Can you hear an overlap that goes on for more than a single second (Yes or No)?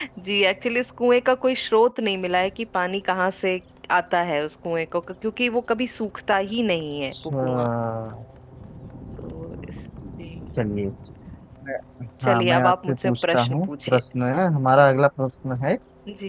Yes